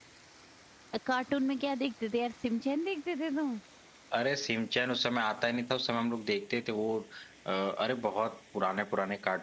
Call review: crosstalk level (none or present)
none